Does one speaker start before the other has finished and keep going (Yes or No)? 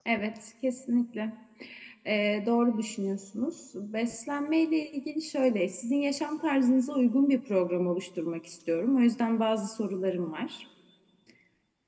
No